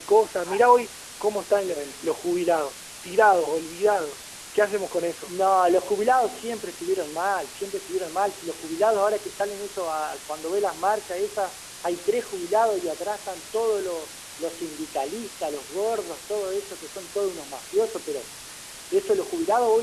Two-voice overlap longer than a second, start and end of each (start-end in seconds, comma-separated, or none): none